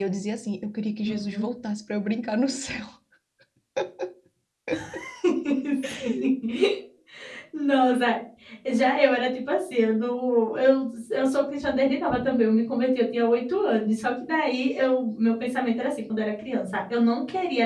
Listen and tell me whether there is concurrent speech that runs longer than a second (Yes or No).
No